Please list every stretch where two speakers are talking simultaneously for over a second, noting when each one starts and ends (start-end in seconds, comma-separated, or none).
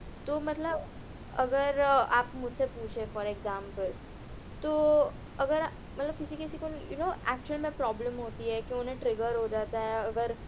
none